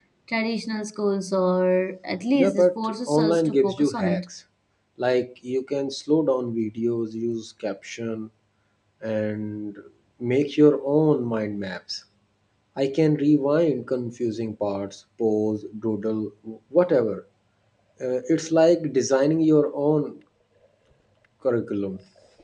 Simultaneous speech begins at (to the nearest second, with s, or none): 2 s